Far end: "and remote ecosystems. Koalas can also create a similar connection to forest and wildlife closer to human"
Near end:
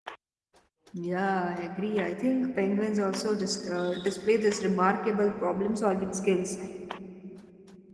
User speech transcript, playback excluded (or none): Yeah, I agree. I think penguins also dis- uh, display this remarkable problem solving skills